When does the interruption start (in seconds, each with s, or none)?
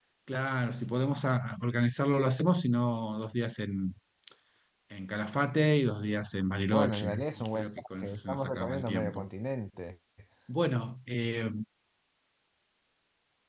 6.7 s